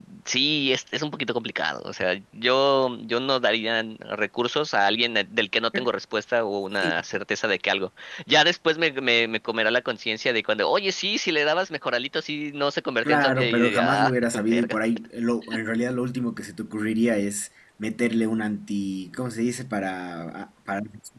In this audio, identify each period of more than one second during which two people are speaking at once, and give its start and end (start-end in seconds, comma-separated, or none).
13.0-14.8